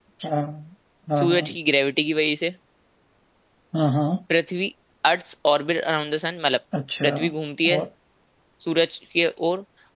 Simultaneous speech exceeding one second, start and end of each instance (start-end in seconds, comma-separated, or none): none